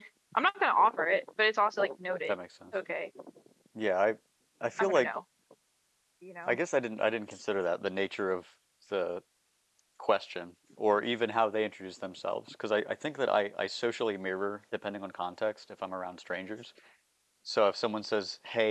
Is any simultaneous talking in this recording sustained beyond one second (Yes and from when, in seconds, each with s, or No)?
No